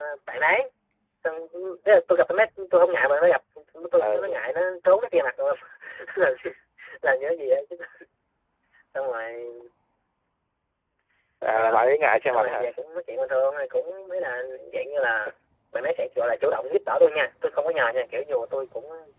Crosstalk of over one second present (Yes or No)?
No